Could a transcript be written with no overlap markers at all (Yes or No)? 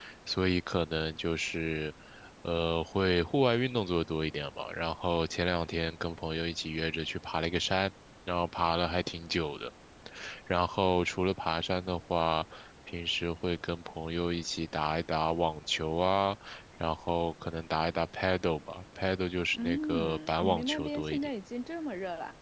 No